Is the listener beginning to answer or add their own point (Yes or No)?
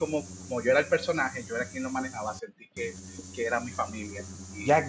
Yes